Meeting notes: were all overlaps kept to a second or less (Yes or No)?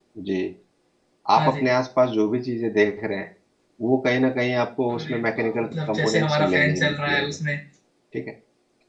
No